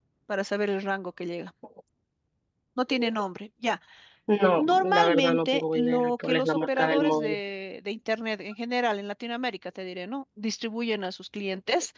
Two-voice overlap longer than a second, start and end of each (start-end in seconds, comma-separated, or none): 4.6-7.4